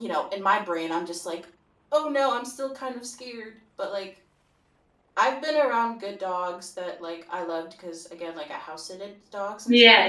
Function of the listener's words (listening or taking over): taking over